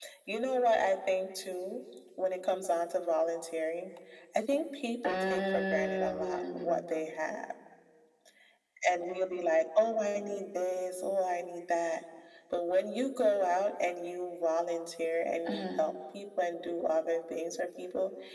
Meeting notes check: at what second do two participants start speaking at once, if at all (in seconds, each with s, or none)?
5.0 s